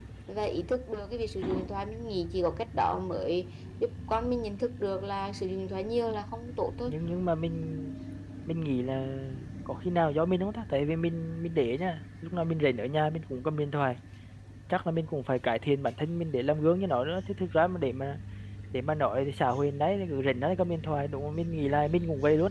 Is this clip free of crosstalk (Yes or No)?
Yes